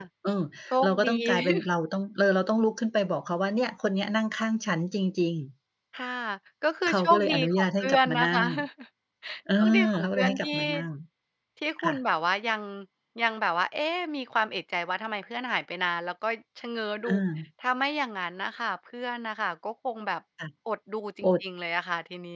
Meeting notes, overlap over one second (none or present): present